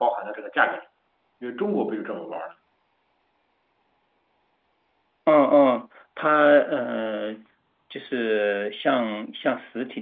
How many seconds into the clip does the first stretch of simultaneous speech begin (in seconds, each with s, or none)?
none